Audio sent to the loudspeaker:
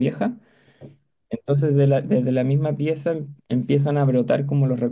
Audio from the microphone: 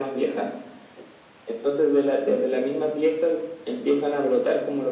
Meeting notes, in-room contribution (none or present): none